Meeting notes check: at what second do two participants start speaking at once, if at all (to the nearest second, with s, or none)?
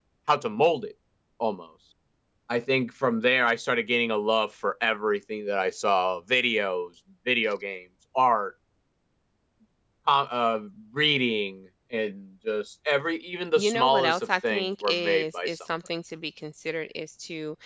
14 s